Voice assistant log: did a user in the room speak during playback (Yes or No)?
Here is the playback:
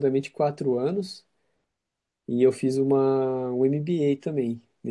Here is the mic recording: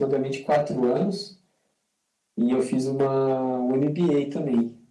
No